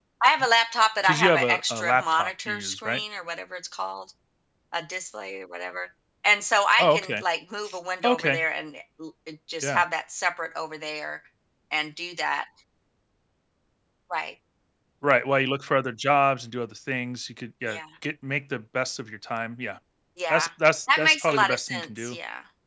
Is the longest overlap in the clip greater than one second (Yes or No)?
Yes